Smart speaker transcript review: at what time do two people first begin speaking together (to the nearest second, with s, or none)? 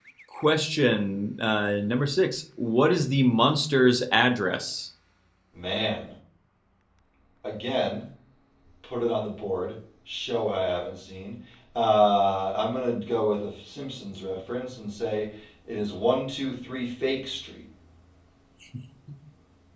none